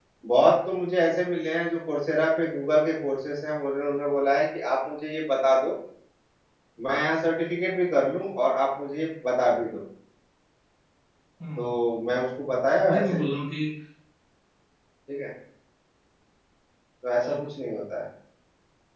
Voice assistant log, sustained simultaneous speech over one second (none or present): none